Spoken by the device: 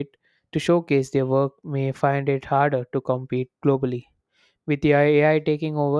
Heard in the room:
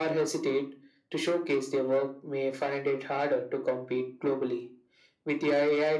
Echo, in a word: present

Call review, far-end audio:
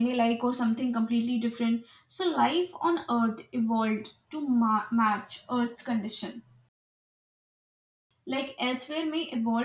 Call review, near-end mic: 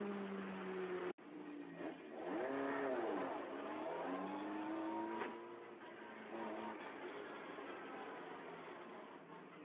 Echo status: none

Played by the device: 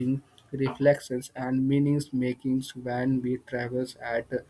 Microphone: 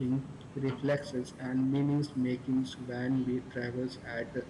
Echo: present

